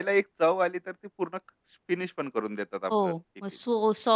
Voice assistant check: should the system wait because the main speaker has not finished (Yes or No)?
No